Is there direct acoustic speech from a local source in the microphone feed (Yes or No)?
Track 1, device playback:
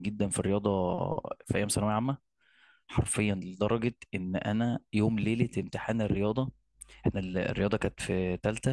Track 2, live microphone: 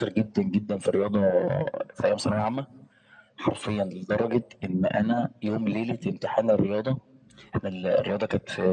No